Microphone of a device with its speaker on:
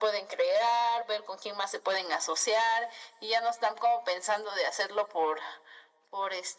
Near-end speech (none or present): none